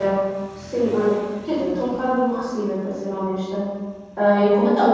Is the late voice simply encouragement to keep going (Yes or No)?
Yes